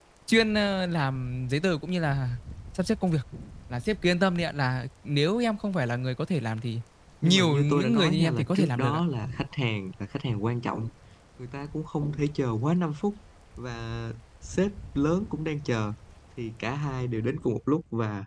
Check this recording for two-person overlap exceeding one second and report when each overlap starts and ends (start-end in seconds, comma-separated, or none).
7.2-9.0